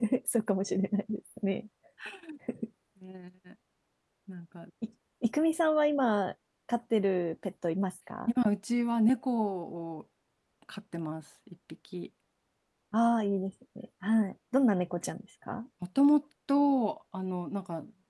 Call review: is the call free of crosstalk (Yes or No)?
Yes